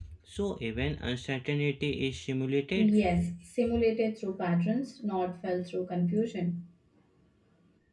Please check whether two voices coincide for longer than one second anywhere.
No

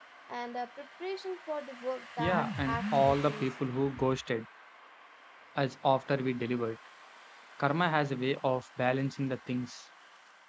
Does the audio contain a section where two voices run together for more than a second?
Yes, from 2.2 s

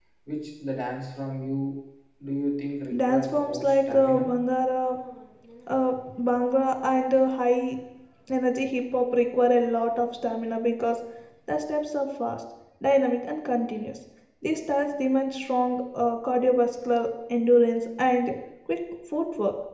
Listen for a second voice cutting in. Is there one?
Yes, from 3.1 s

